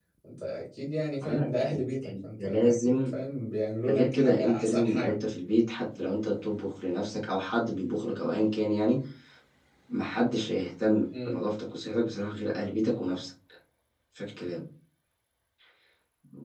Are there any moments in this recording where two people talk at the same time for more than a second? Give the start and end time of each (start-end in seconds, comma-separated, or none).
1.2-3.1, 3.9-5.2